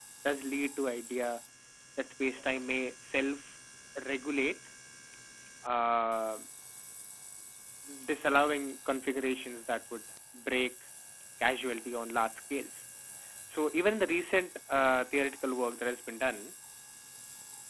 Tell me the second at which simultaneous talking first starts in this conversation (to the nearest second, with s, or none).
none